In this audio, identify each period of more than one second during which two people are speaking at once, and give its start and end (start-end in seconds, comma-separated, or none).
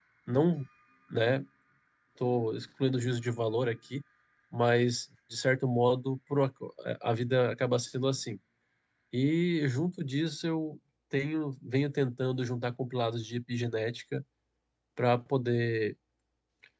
none